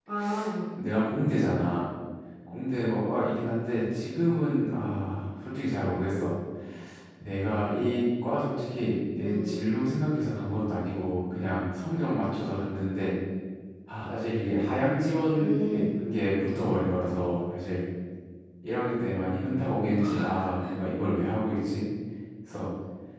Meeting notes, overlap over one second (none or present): none